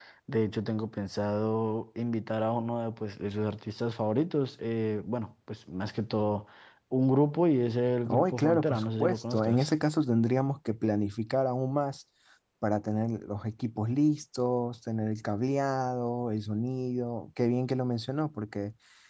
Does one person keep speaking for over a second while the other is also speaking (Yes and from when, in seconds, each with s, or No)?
Yes, from 8.1 s